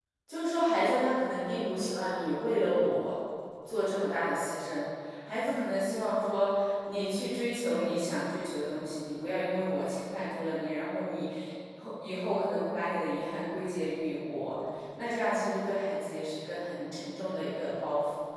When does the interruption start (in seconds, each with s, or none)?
none